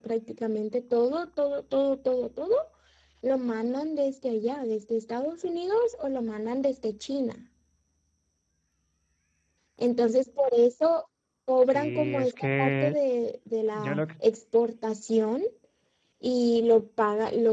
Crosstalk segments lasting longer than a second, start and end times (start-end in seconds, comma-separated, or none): 11.7-12.9